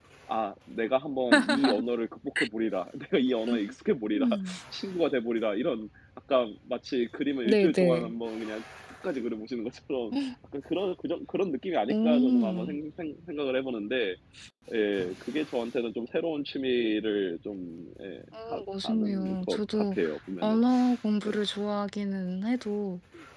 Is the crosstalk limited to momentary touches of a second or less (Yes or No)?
No